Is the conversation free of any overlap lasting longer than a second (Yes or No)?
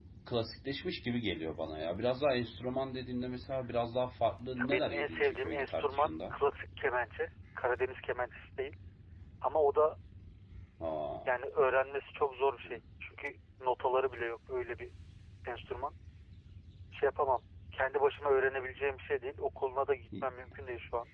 No